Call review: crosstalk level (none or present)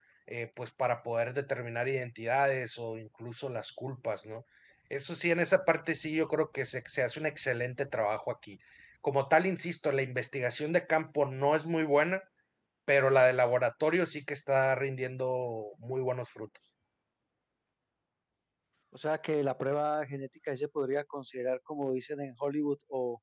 none